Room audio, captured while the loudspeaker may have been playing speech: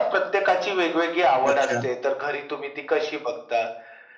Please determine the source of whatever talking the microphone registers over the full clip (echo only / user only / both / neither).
both